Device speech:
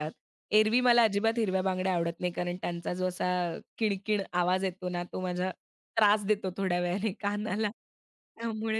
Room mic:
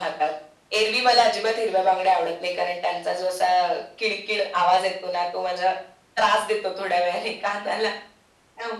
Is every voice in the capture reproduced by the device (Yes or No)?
Yes